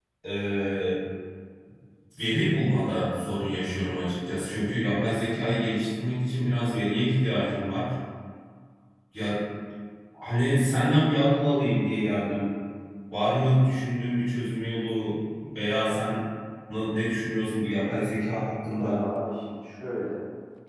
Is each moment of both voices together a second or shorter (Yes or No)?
Yes